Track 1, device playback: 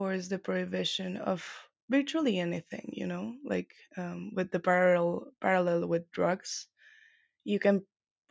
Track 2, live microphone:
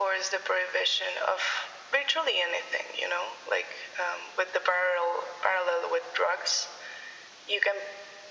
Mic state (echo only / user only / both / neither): echo only